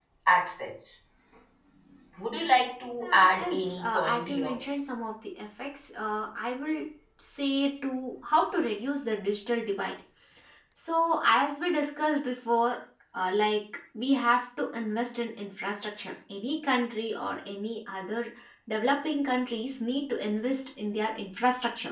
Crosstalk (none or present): present